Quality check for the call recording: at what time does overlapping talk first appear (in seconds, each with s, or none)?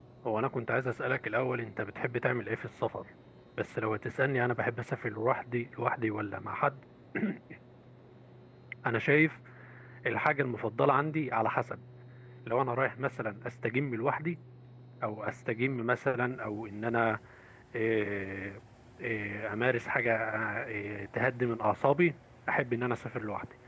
none